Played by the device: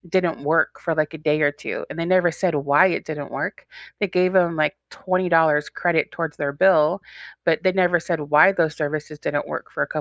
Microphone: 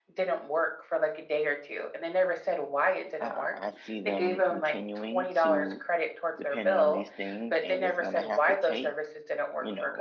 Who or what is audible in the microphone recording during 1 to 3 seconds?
echo only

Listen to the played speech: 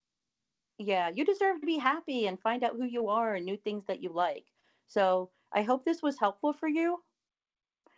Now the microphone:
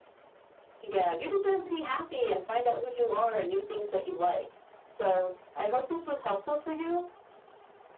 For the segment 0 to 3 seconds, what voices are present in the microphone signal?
echo only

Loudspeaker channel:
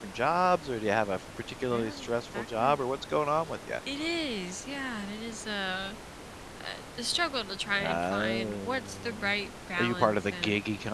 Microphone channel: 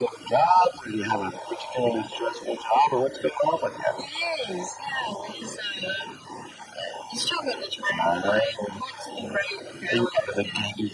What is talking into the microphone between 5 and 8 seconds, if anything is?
echo only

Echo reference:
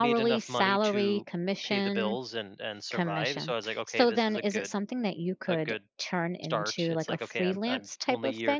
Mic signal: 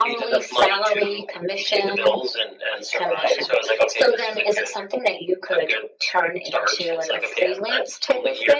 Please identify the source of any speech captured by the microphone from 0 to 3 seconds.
echo only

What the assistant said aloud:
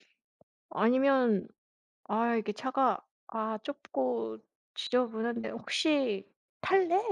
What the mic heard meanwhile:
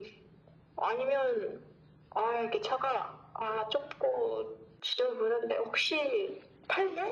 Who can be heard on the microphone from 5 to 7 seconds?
echo only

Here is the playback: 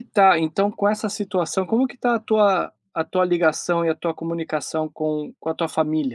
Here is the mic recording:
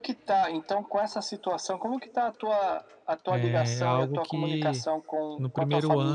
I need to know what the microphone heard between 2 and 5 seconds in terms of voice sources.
both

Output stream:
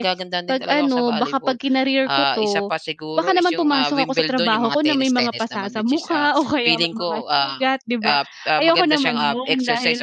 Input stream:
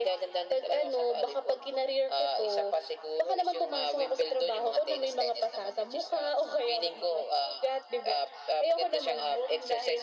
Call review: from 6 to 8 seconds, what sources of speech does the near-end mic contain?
echo only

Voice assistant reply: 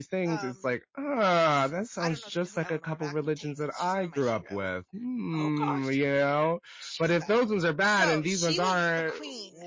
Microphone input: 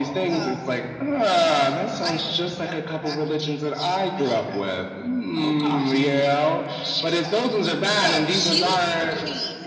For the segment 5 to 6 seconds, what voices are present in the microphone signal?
echo only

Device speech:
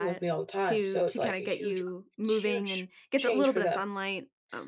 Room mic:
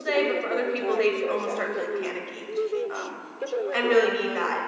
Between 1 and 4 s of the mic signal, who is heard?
both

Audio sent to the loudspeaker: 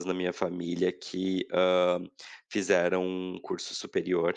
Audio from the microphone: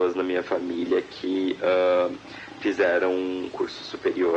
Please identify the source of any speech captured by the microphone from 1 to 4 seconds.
echo only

